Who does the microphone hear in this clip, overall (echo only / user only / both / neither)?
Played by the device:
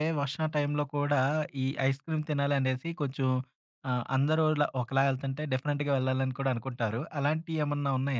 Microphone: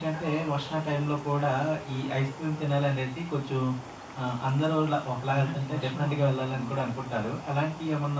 both